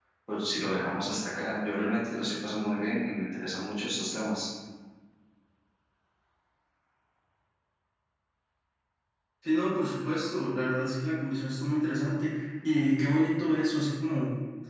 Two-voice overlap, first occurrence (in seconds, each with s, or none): none